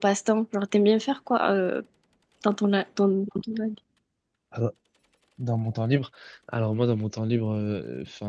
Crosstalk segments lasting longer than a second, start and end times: none

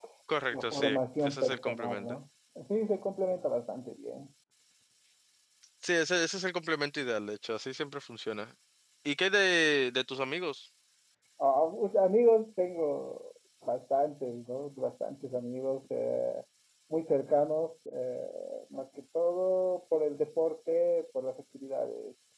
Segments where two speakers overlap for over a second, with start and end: 0.5-2.2

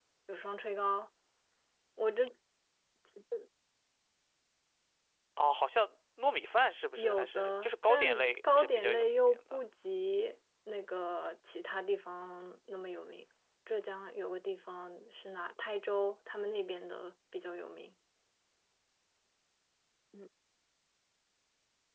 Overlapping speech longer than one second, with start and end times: 7.0-9.6

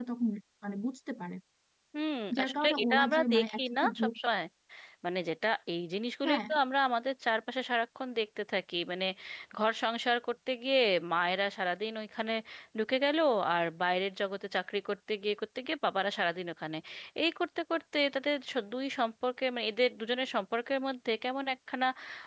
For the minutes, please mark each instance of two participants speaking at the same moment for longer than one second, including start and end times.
2.4-4.1

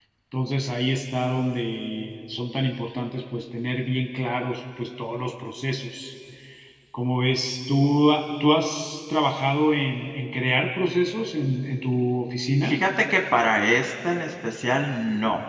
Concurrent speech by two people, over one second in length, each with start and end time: none

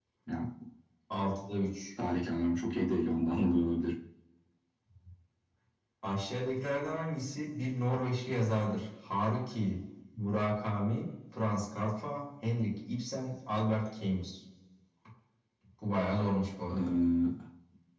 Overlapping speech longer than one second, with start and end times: none

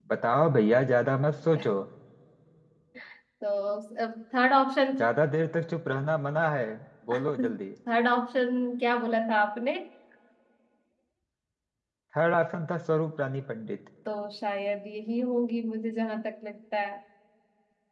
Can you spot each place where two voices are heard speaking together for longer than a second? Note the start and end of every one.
none

